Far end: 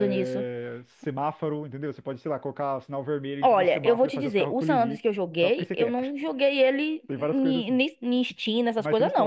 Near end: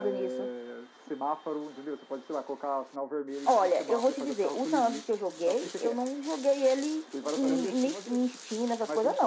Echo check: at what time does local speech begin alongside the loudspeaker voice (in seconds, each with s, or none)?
7.4 s